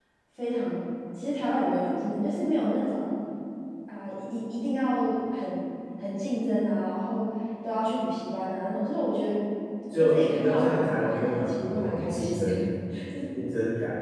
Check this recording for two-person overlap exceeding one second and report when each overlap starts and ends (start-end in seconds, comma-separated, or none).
9.9-12.5